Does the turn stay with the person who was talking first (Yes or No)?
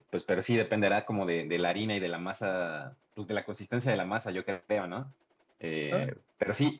Yes